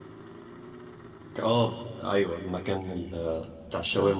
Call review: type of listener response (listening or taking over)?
listening